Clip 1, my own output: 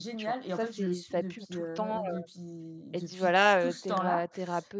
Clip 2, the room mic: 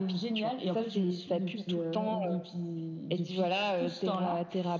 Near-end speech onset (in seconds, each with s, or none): none